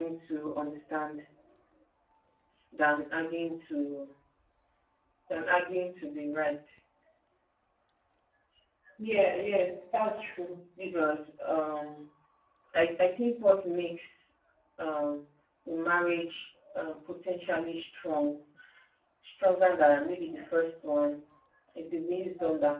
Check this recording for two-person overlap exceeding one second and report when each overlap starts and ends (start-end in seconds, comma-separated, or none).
none